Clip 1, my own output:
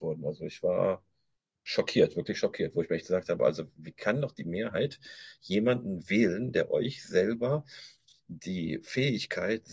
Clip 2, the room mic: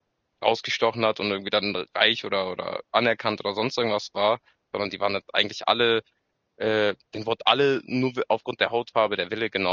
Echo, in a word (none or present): none